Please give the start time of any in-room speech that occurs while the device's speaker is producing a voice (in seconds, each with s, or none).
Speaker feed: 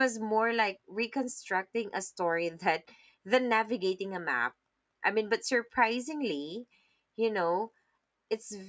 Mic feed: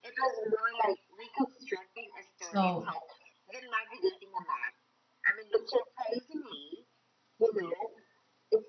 2.4 s